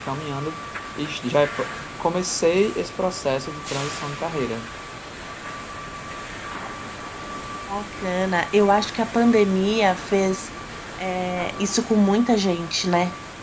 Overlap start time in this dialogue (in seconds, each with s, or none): none